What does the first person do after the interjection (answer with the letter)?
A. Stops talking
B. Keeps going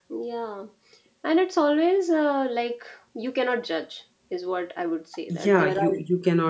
A